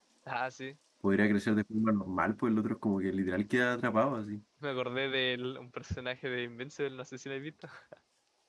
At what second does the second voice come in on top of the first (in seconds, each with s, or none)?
none